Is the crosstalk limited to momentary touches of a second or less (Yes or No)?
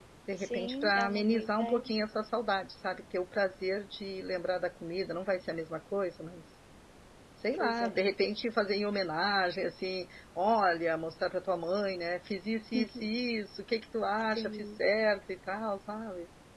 No